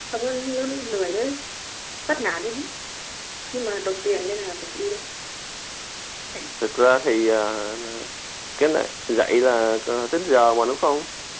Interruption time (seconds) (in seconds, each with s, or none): none